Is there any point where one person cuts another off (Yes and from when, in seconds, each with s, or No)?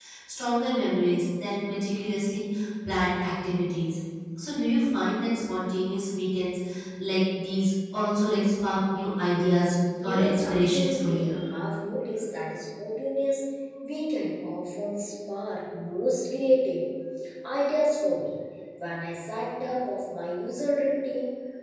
Yes, from 10.0 s